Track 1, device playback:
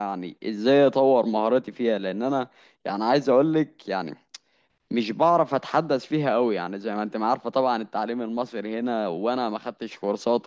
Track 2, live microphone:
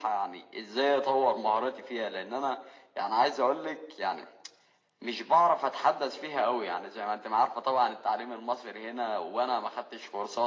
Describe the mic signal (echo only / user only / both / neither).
echo only